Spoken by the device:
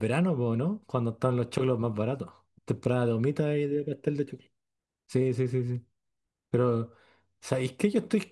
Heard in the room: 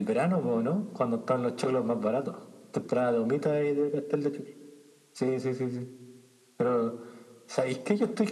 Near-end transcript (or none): none